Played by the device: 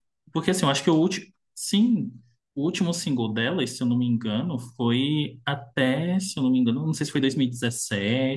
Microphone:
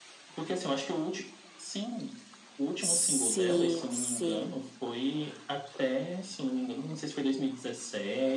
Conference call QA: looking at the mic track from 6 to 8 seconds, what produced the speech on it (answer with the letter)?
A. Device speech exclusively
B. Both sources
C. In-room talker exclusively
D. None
A